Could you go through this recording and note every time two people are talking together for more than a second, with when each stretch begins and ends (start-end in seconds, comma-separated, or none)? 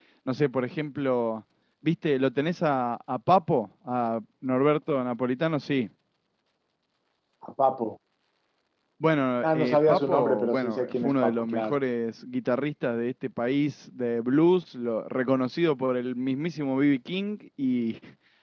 9.4-11.8